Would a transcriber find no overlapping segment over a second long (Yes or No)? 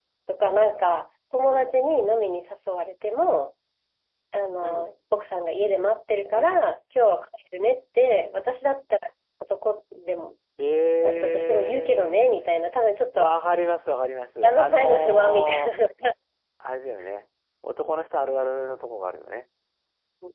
No